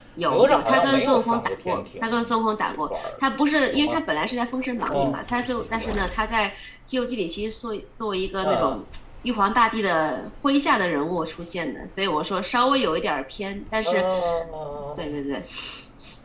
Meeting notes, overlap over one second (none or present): present